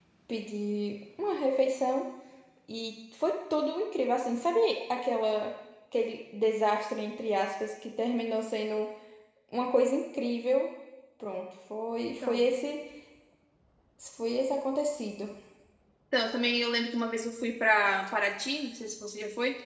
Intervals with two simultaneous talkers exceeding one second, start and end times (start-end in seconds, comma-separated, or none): none